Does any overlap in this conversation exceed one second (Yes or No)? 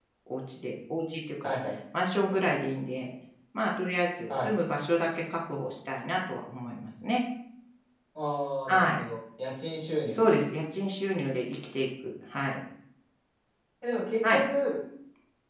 No